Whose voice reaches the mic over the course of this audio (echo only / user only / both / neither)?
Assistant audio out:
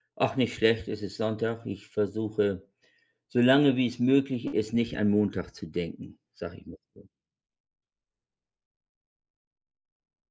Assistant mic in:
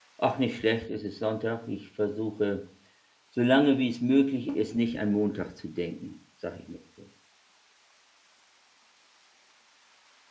echo only